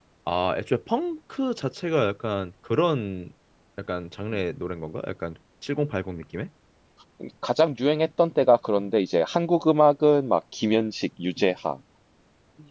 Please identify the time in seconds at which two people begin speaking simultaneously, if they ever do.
none

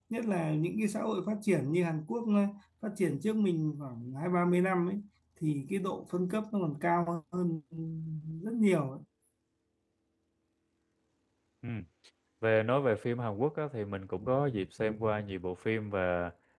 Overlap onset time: none

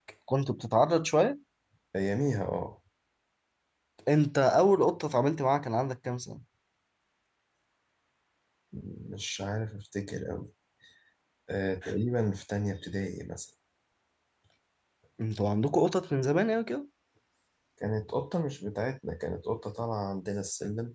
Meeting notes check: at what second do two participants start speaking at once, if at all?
none

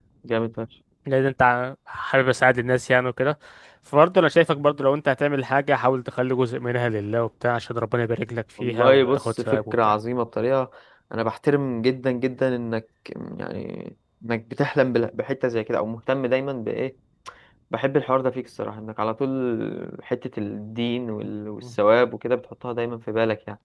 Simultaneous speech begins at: 8.6 s

